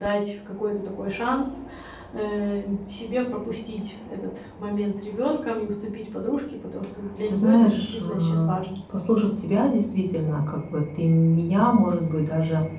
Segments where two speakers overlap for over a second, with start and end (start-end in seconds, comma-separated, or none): 7.3-8.5